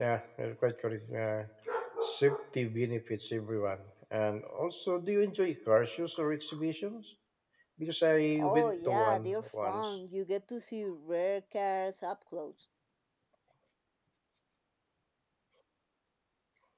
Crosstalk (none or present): present